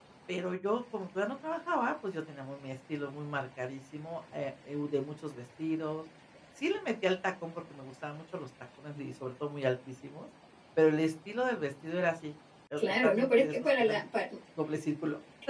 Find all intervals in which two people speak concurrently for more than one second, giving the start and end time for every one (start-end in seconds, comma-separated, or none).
12.8-14.0